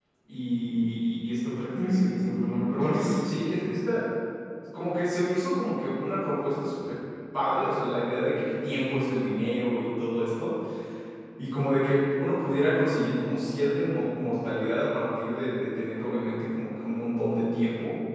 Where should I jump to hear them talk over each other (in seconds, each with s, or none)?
1.8 s